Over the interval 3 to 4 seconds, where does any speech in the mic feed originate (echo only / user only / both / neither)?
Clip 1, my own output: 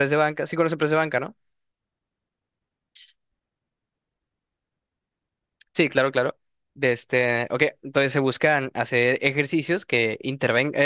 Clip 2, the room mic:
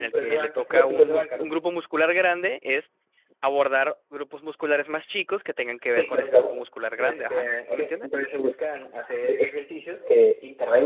user only